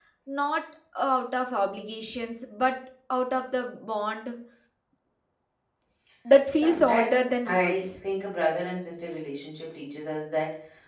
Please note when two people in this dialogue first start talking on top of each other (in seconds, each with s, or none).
6.5 s